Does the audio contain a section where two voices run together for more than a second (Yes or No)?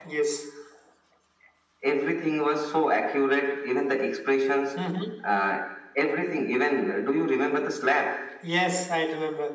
No